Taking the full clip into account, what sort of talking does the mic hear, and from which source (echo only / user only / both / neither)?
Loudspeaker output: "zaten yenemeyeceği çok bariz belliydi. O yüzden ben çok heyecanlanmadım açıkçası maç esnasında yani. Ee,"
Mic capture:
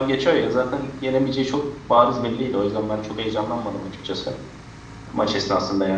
echo only